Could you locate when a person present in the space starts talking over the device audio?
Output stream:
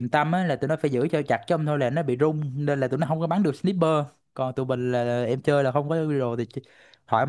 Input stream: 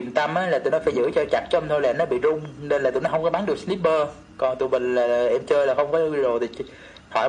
none

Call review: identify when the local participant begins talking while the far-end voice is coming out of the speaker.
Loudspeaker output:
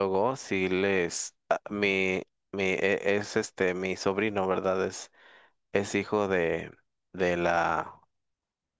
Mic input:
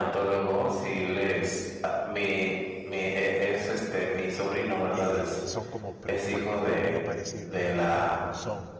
4.9 s

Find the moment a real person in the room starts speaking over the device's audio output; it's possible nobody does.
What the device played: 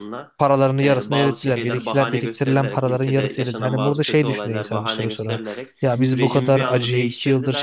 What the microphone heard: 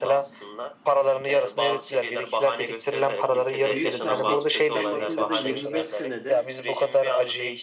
3.6 s

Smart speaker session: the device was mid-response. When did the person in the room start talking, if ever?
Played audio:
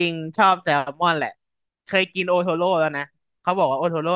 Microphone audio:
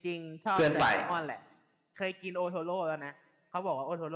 0.5 s

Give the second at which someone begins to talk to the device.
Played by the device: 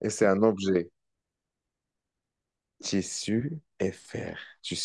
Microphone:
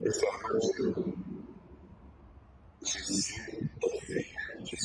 none

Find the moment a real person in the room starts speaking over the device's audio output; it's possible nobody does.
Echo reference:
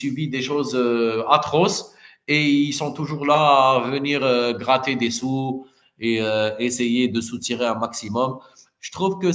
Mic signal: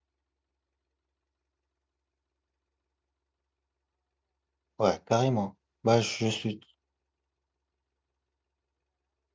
4.8 s

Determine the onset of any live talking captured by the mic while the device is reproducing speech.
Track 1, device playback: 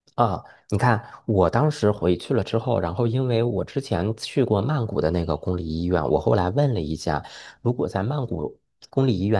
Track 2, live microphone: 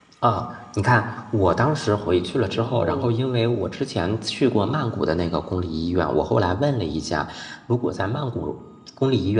2.5 s

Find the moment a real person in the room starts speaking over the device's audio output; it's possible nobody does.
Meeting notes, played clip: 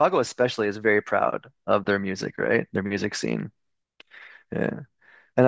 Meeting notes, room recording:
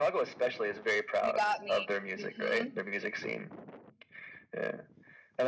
1.2 s

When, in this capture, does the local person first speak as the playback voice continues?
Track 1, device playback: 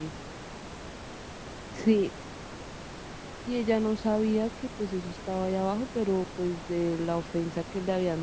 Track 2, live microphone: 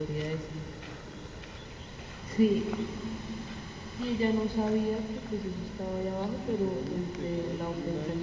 6.3 s

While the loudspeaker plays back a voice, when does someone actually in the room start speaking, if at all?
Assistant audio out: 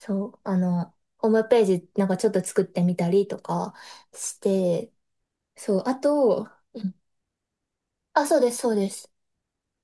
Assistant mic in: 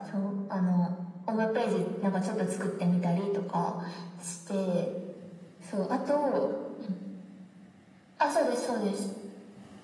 none

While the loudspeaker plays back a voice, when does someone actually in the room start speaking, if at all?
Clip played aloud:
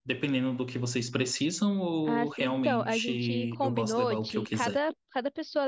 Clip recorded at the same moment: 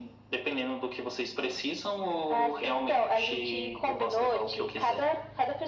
none

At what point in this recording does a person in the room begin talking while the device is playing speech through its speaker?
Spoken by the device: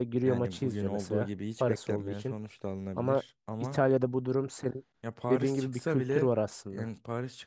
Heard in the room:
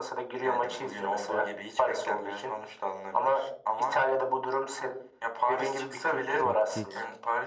6.4 s

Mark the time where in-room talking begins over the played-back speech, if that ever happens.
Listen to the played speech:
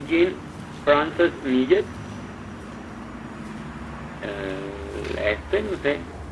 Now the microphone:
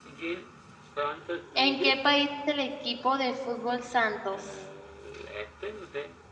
1.5 s

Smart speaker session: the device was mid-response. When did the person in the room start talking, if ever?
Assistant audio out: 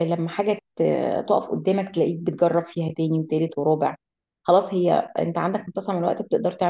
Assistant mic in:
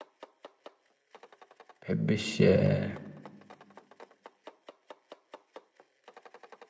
1.8 s

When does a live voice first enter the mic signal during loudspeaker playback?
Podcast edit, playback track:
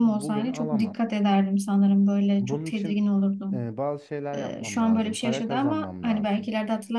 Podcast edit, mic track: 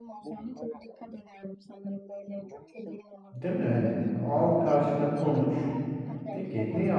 3.3 s

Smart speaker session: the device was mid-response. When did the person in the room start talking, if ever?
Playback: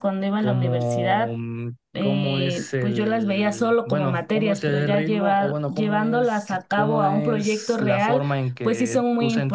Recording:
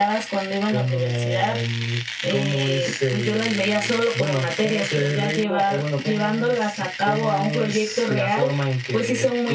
none

